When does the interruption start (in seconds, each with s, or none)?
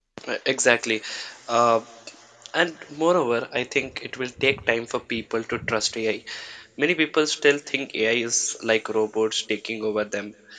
none